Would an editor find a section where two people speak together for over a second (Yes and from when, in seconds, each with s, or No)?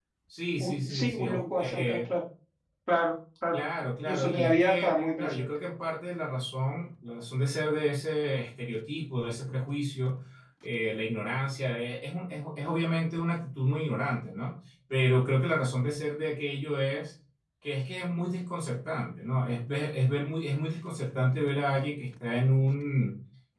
Yes, from 0.6 s